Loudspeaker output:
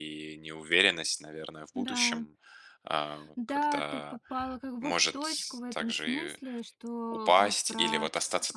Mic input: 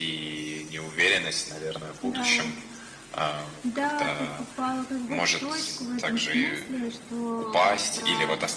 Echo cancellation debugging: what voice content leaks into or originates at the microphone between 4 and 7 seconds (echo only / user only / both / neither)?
echo only